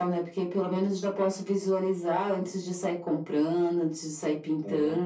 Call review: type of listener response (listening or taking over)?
taking over